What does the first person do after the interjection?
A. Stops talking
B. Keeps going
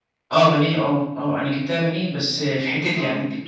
B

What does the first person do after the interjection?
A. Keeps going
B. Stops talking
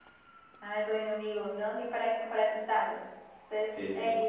A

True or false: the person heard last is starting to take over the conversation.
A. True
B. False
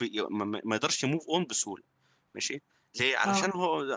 B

